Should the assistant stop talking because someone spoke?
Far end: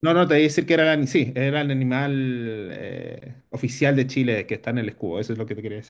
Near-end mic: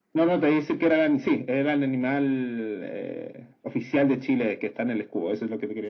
No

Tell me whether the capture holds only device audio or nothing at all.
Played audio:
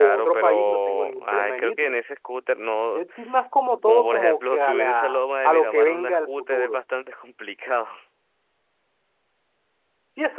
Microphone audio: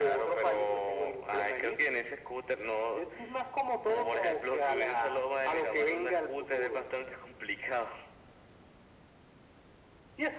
Yes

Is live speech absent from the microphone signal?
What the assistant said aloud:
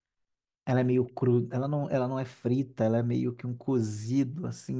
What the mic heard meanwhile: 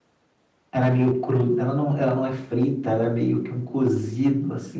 Yes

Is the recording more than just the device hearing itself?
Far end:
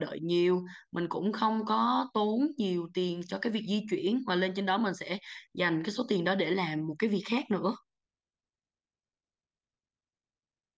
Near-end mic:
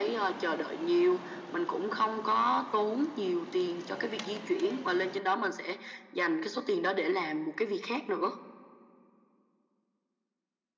No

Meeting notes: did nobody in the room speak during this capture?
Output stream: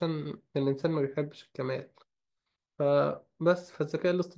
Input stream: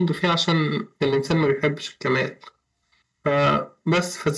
Yes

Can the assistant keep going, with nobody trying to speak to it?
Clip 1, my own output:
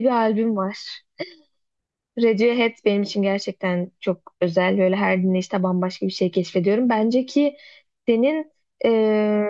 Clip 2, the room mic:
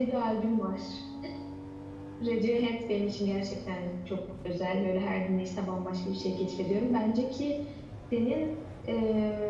Yes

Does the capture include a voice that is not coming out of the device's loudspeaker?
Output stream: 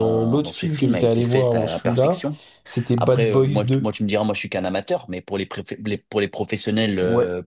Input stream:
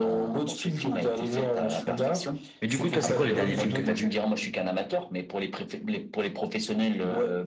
Yes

